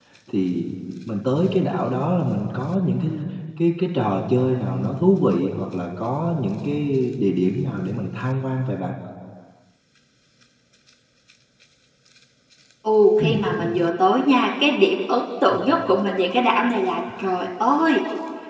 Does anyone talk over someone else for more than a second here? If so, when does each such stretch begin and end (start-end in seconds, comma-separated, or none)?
none